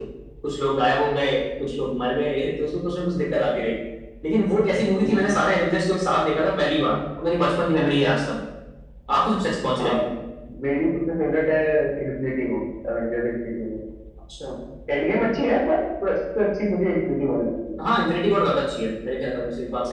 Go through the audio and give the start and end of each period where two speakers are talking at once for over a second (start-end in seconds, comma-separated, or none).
none